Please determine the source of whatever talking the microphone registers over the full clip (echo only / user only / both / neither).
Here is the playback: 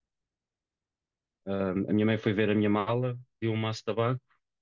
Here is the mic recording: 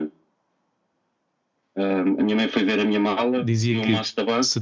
both